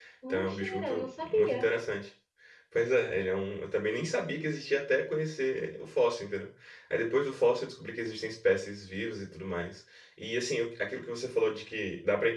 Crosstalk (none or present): present